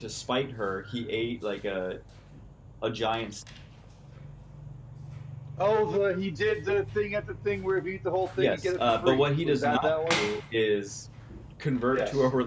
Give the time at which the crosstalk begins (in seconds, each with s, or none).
8.4 s